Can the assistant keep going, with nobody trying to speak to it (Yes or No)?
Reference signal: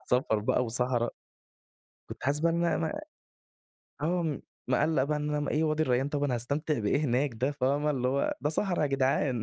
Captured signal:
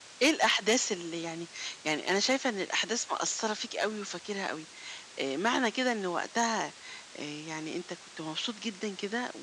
No